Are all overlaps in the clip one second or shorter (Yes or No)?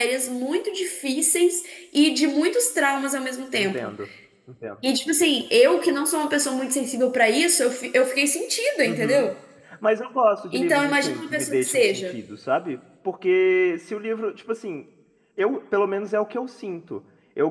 No